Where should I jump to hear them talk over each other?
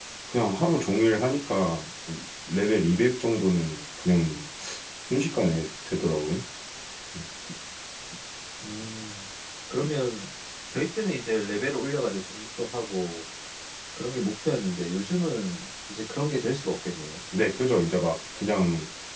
none

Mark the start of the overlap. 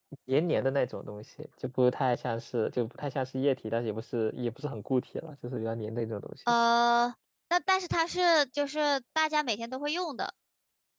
none

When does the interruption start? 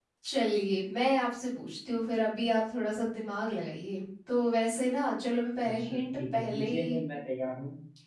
5.6 s

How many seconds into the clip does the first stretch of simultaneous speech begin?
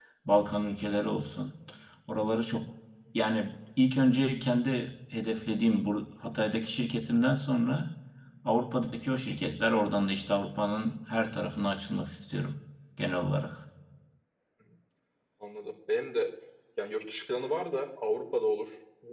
none

